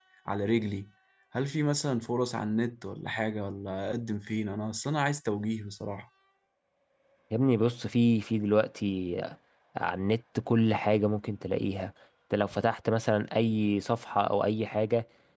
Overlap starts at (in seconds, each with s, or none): none